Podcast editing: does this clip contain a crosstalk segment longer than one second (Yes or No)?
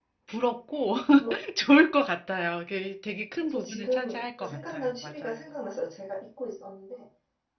Yes